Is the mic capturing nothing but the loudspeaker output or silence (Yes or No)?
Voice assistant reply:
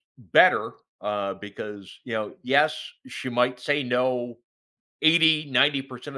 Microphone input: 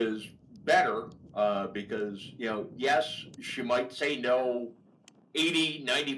Yes